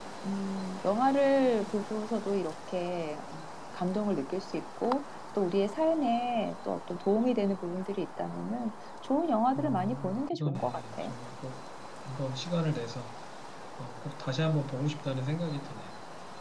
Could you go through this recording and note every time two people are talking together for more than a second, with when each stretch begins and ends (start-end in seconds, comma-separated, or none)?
9.6-11.1